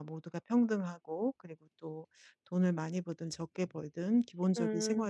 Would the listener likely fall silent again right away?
Yes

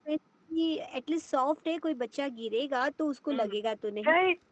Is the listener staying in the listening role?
No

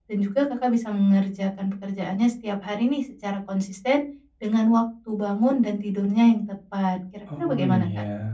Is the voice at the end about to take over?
Yes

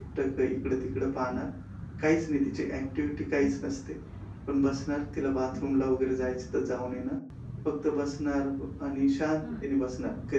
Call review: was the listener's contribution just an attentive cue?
Yes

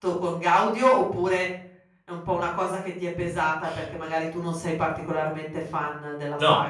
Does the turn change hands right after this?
Yes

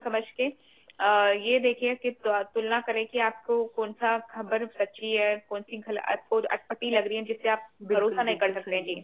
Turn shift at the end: Yes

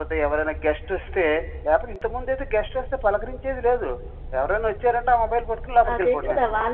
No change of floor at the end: No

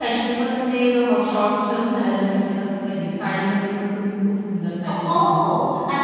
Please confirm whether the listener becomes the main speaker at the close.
Yes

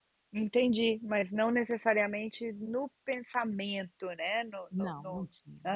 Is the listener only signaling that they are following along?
No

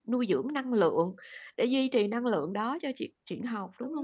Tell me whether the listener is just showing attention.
No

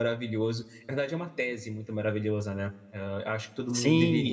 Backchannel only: No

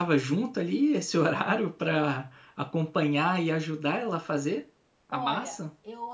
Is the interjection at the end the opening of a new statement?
Yes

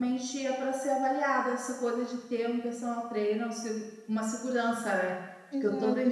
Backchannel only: No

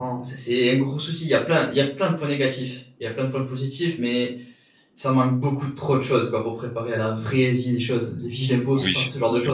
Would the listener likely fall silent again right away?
No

